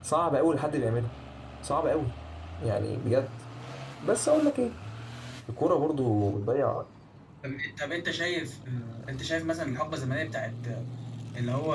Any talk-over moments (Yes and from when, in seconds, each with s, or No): No